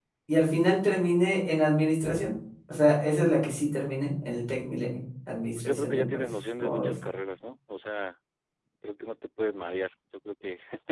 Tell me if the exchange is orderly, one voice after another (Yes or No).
No